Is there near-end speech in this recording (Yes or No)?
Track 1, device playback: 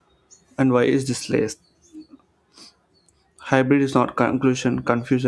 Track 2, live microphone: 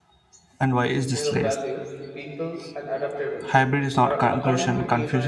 Yes